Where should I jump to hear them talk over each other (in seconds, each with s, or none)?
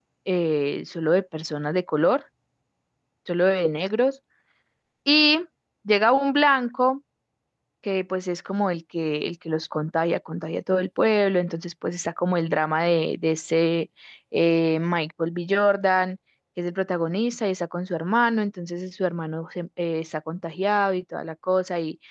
none